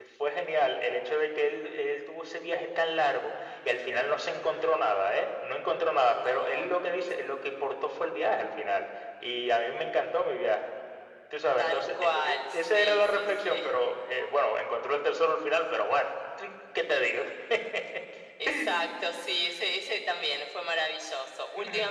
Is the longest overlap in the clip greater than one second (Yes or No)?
Yes